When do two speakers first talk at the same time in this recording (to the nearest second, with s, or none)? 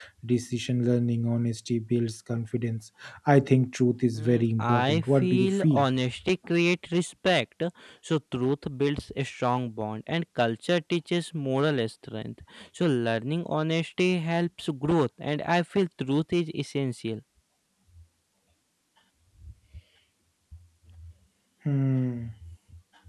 4 s